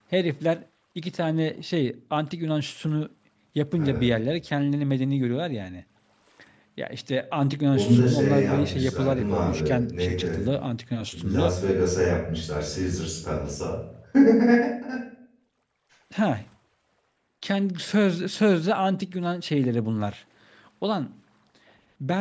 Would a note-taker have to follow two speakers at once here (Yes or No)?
Yes